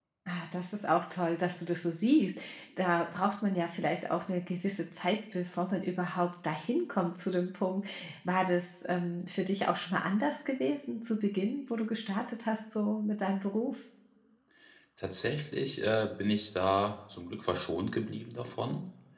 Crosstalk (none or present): none